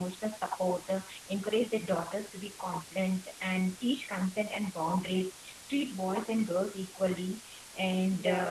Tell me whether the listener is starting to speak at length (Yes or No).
No